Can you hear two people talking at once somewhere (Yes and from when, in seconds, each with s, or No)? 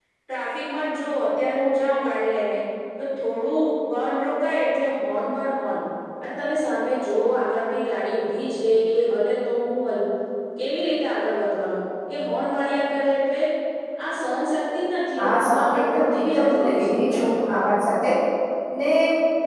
Yes, from 15.2 s